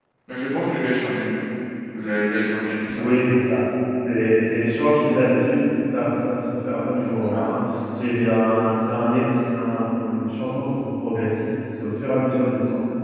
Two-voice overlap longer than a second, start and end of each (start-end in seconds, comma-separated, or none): none